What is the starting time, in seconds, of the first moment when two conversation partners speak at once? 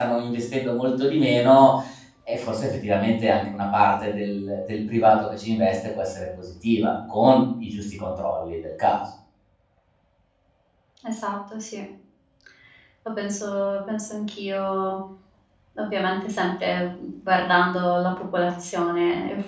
none

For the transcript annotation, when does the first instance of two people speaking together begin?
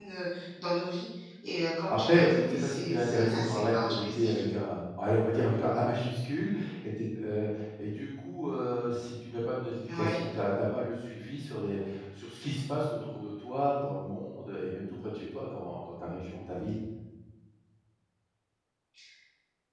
2 s

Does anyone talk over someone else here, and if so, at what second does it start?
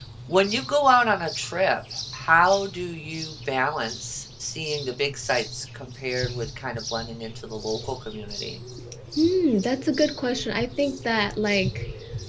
none

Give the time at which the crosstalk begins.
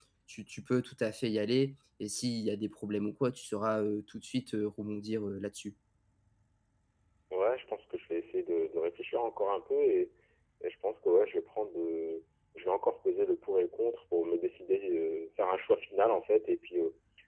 none

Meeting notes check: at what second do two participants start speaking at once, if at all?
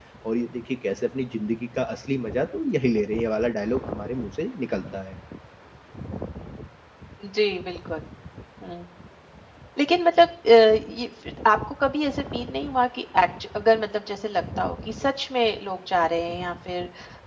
none

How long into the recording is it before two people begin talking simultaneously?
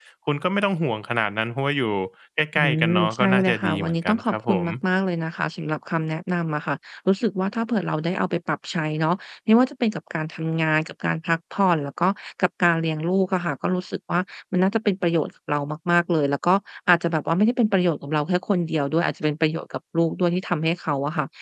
3 s

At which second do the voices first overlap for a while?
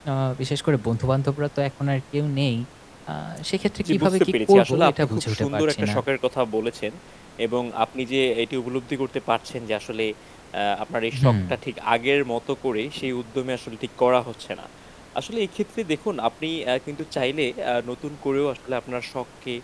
4 s

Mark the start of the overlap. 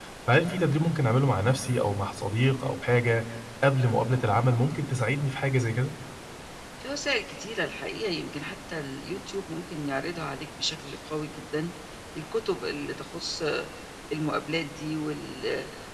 none

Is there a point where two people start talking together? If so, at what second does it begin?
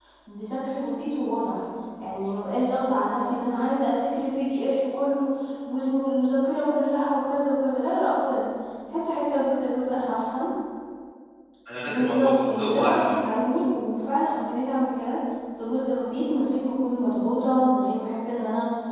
12 s

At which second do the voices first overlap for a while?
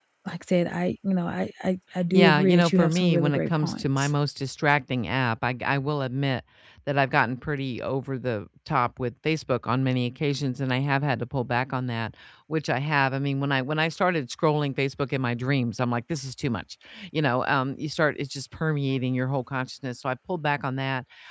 2 s

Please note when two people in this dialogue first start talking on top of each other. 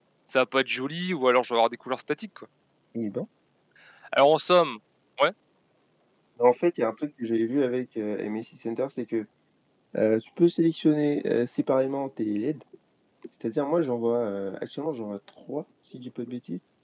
none

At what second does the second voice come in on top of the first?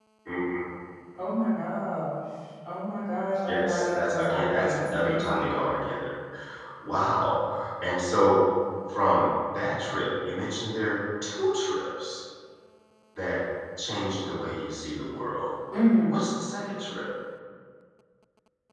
3 s

